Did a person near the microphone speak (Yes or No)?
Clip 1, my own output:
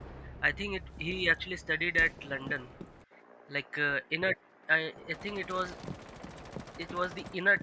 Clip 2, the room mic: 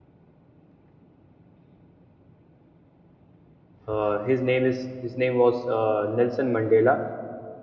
Yes